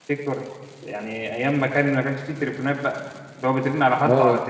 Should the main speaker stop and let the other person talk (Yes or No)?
No